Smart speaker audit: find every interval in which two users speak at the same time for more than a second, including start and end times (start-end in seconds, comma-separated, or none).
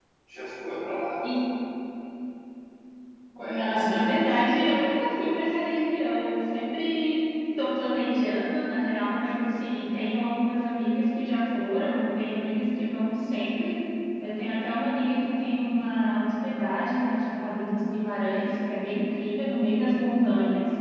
3.5-4.7